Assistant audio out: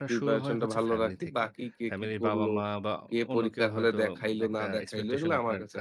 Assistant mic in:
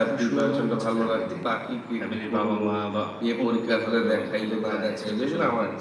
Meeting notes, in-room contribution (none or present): none